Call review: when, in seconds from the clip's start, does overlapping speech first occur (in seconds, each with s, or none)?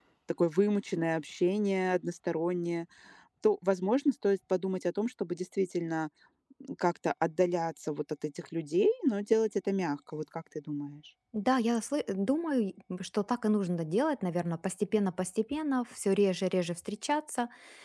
none